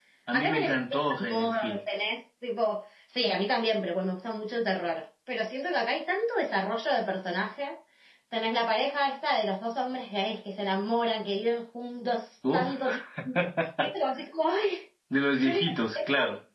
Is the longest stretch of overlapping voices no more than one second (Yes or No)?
No